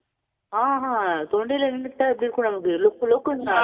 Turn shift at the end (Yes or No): No